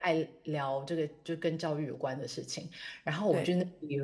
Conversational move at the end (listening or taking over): listening